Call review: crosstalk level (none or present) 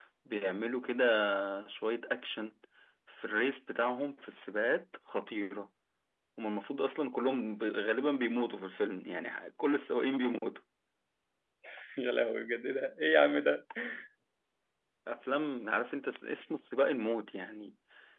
none